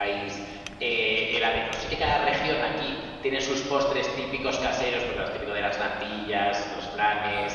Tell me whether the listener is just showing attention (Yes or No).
Yes